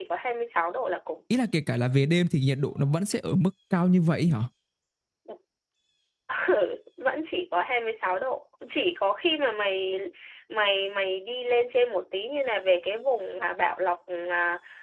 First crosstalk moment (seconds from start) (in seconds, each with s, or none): none